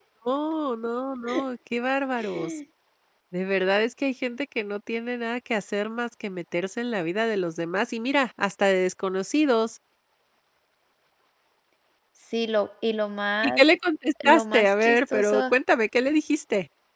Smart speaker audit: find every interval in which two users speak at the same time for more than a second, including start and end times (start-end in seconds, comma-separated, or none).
14.2-15.5